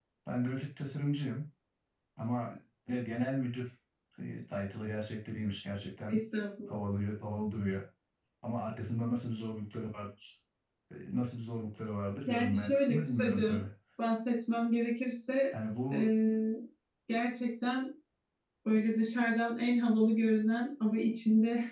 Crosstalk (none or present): present